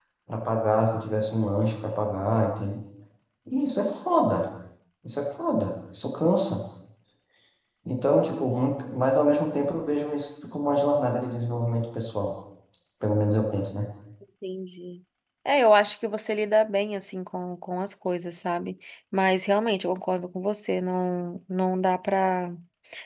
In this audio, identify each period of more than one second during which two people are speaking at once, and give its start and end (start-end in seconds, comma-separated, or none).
none